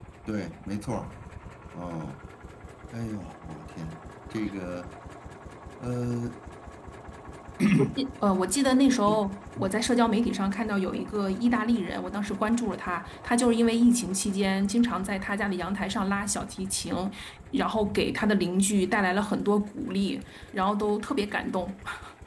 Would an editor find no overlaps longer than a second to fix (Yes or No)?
Yes